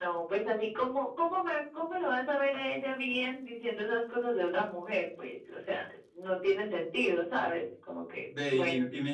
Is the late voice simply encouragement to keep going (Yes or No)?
No